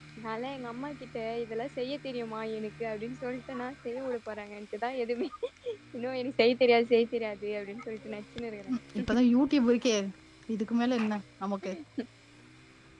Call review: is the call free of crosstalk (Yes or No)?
Yes